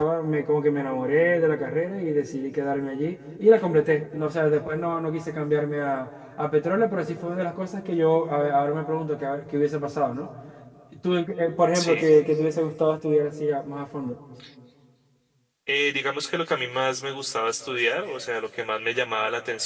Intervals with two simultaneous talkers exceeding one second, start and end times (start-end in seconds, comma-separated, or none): none